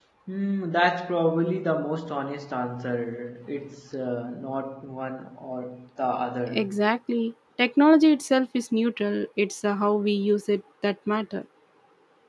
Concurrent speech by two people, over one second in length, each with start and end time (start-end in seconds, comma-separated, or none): none